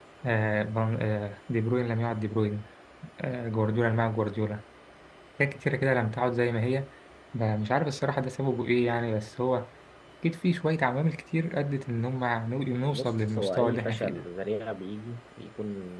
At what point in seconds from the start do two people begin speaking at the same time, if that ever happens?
13 s

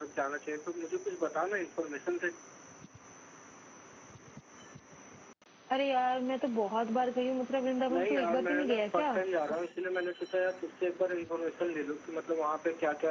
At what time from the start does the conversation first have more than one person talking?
8 s

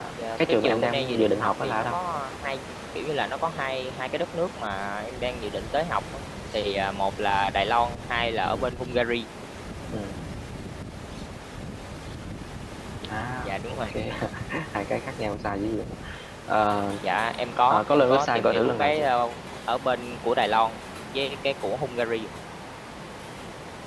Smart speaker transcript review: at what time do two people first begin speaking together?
1 s

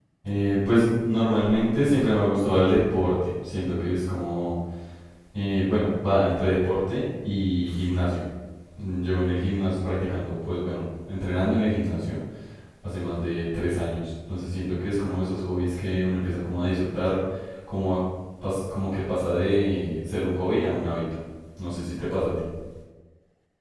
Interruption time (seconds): none

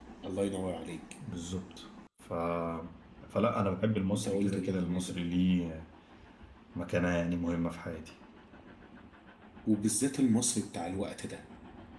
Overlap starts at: 4 s

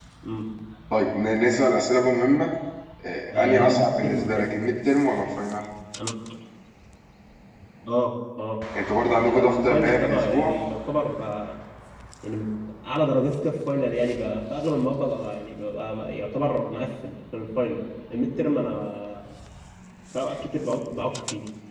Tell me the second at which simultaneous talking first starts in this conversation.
3 s

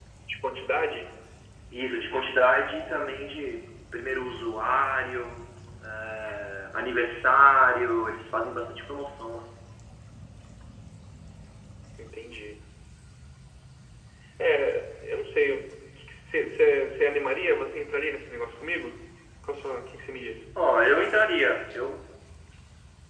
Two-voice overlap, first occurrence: none

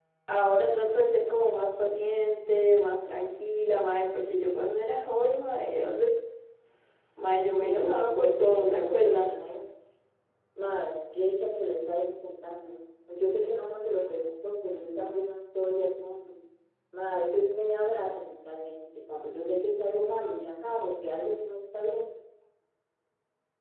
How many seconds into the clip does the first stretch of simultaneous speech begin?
8 s

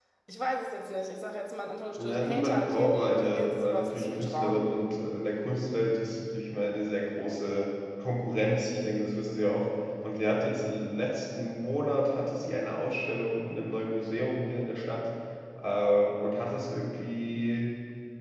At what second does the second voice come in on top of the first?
2 s

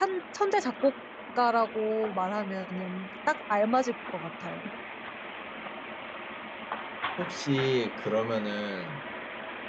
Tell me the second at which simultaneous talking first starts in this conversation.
none

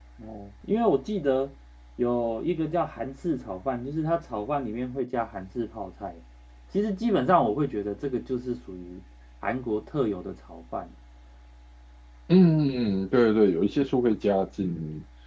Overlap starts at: none

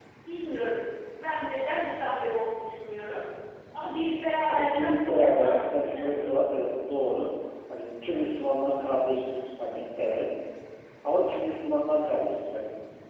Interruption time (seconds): 4 s

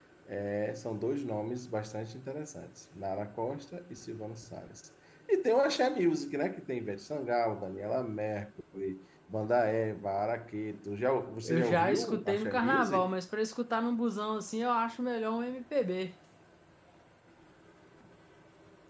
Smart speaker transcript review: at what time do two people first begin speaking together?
11 s

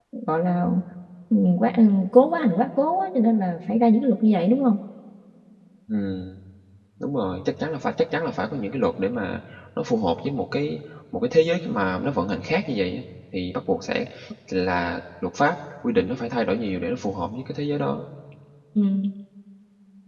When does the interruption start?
none

